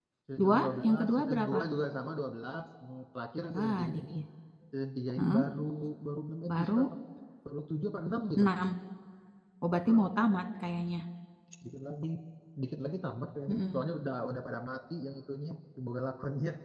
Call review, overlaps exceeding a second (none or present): present